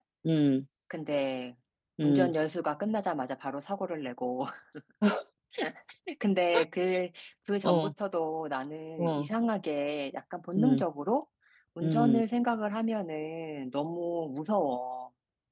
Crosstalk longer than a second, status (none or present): none